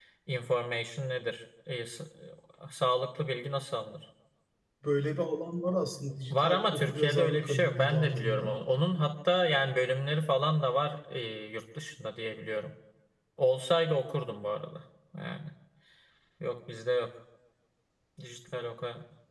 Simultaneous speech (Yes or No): Yes